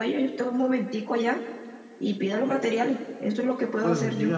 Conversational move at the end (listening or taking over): taking over